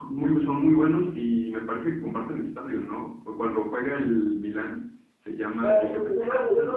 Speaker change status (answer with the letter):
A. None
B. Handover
B